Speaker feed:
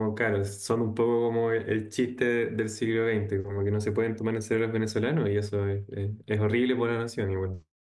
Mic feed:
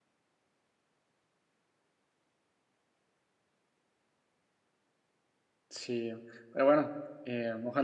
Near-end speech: present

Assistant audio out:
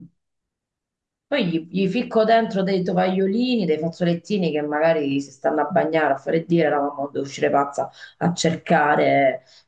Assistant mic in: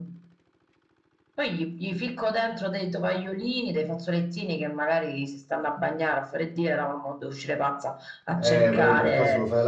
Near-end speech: present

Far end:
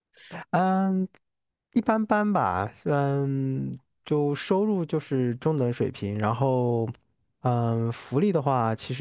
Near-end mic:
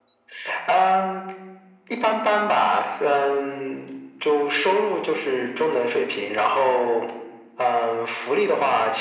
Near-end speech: none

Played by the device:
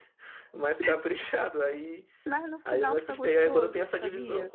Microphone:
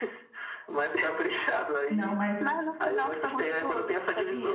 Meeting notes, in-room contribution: present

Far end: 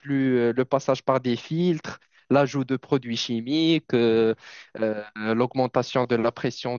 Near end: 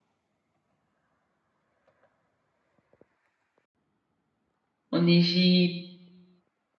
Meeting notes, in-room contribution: present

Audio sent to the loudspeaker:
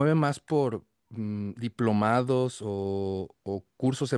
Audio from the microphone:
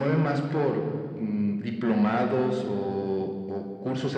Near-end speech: none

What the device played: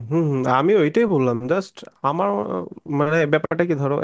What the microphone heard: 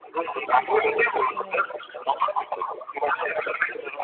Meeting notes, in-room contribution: present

